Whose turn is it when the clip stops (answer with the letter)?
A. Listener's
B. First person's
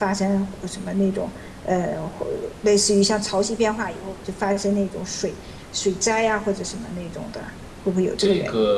A